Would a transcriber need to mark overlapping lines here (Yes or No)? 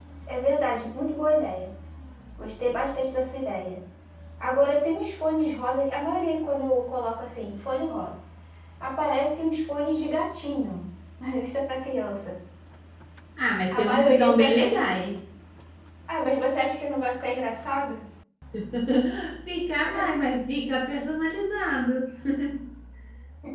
Yes